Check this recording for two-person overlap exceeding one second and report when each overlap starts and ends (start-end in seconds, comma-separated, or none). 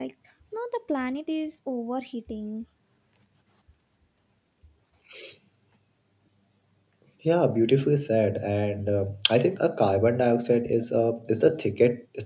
none